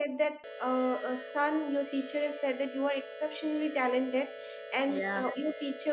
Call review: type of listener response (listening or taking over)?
listening